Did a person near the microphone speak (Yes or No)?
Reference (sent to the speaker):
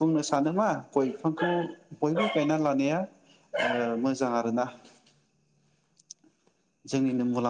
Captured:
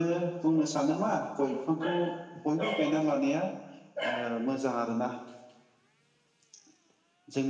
No